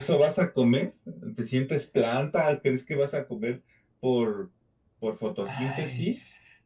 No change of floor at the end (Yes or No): No